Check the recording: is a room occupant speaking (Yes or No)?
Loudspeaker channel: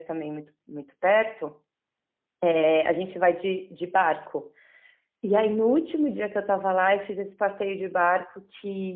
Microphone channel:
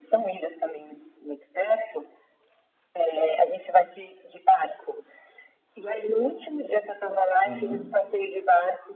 Yes